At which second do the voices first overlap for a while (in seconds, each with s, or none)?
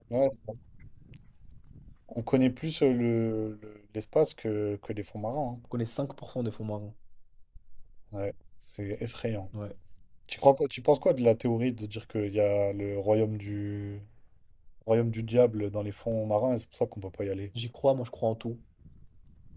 none